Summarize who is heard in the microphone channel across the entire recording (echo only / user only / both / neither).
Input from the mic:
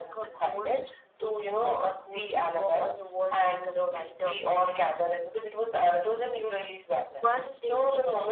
echo only